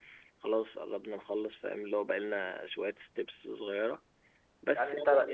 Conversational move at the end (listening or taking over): taking over